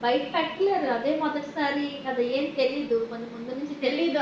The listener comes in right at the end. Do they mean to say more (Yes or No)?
Yes